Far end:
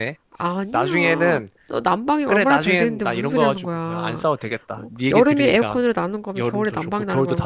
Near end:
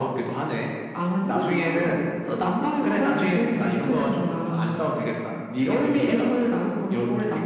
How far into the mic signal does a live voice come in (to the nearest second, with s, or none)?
none